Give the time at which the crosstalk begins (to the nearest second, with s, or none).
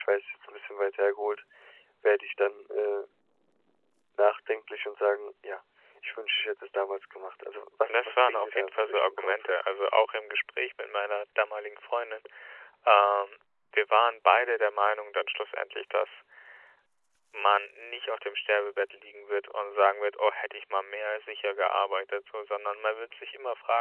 8 s